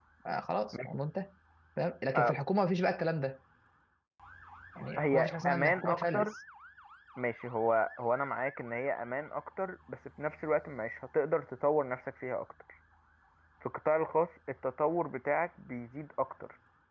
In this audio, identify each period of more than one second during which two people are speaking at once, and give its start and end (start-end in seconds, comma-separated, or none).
5.0-6.3